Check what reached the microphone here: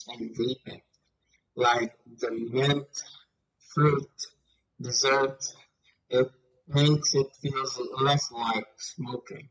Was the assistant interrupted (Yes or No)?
No